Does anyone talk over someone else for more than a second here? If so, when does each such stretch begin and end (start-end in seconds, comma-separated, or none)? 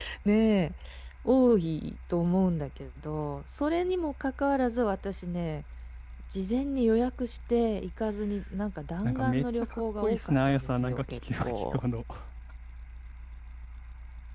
9.0-11.8